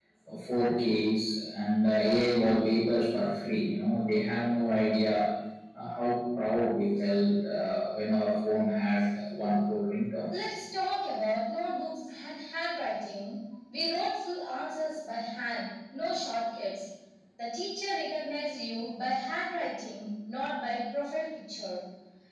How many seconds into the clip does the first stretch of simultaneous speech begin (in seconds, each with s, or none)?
none